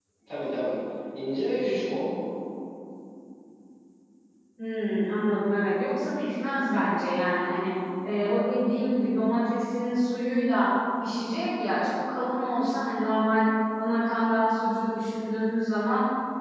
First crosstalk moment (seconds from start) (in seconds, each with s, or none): none